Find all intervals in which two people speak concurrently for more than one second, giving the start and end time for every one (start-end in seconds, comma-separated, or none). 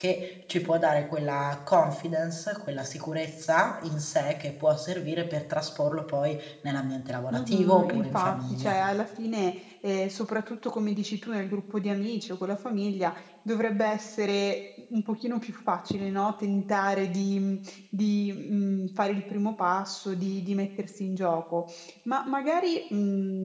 7.3-8.8